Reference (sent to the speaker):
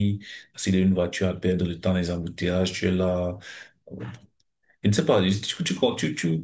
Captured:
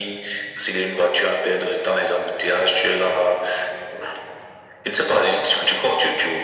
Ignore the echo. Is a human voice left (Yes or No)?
No